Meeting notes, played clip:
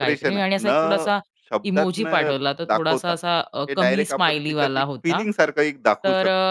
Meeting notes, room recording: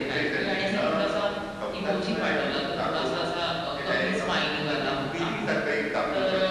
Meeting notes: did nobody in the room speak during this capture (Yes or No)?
Yes